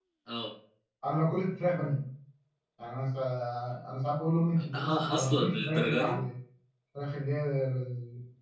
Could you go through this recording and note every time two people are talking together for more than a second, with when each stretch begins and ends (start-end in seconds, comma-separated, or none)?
4.6-6.2